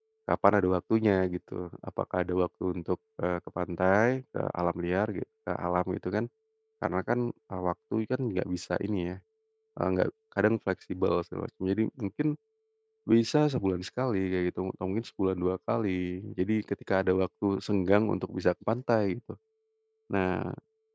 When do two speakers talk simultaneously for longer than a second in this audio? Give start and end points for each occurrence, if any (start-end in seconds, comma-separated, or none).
none